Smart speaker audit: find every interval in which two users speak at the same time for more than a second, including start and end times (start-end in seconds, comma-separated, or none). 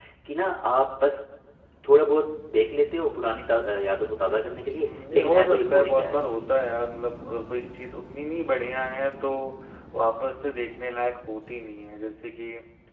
4.7-6.4